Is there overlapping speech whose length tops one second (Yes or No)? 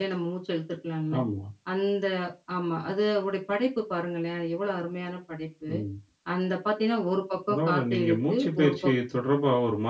Yes